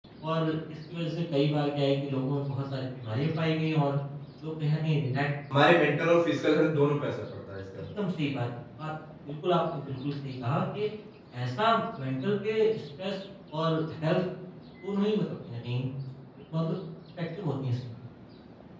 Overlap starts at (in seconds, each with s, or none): none